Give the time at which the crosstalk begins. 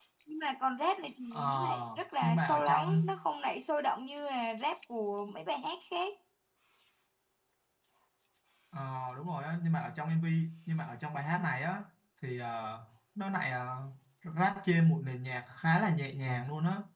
1.3 s

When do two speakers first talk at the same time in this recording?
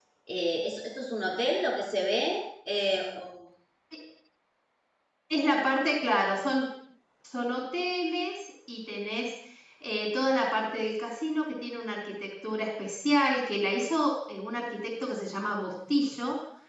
none

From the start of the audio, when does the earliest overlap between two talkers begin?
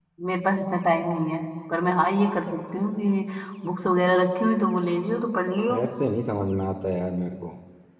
none

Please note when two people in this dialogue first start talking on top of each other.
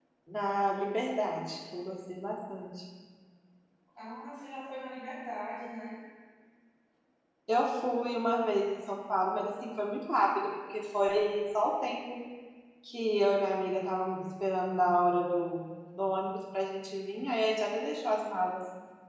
none

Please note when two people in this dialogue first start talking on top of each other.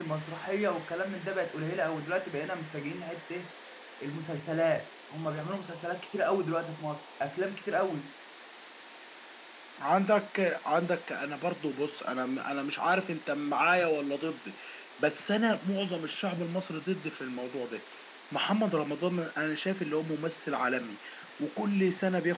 none

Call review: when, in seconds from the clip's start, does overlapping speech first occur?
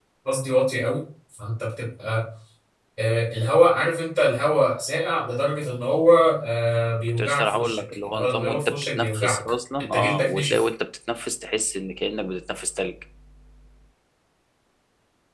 7.2 s

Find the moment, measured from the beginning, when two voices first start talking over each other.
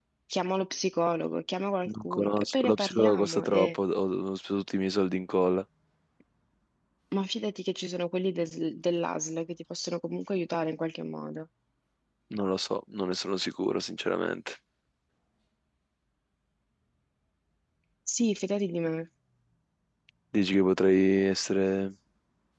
1.9 s

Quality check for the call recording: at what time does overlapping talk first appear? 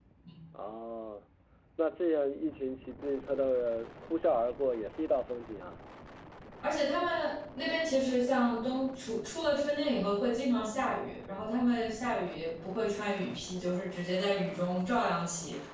none

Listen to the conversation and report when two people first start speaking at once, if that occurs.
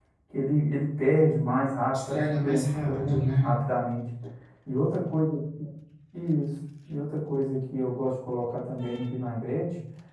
2.1 s

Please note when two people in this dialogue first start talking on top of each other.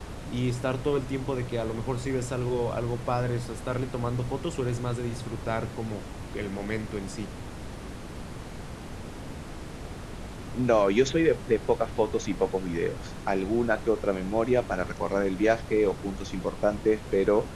none

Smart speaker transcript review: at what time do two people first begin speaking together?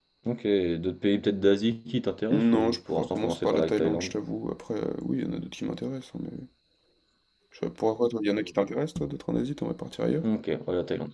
2.3 s

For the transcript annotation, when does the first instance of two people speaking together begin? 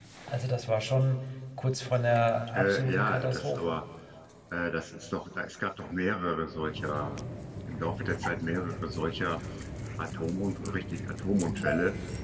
2.5 s

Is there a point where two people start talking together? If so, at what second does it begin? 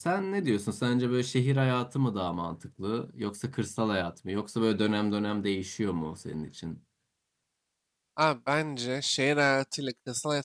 none

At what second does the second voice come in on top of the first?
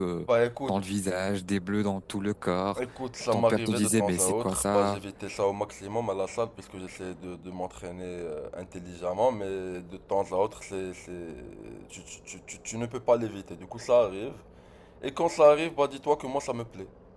3.3 s

